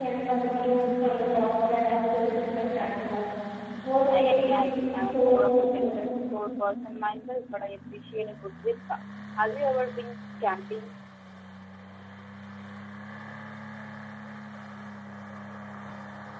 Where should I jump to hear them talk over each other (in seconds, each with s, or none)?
4.1 s